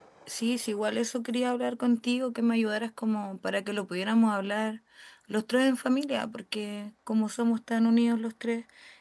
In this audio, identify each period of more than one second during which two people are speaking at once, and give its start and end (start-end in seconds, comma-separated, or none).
none